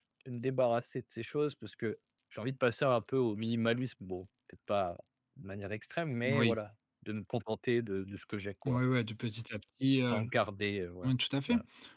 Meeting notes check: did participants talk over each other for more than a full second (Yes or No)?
No